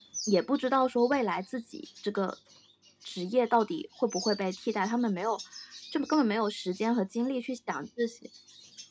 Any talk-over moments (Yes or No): No